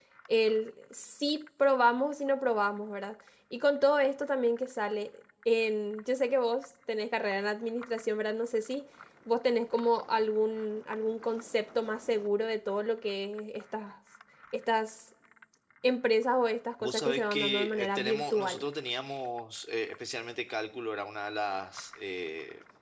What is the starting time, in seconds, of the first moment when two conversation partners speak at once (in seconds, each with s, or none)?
16.8 s